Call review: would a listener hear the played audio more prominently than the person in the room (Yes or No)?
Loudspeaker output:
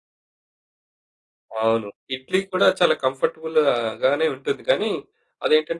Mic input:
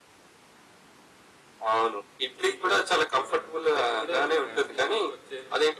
Yes